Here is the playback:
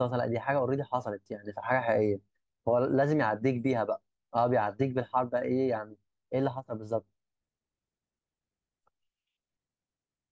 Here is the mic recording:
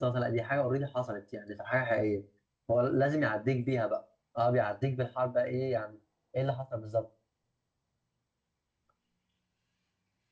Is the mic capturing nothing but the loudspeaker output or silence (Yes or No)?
Yes